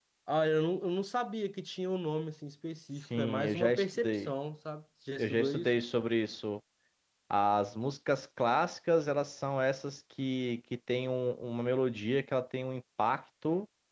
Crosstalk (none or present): present